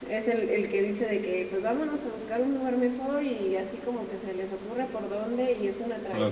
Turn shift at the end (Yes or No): No